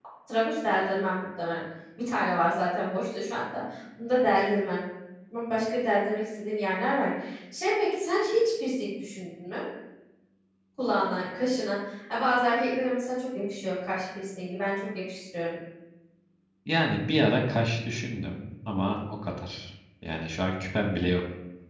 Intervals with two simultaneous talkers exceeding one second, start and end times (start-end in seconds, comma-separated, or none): none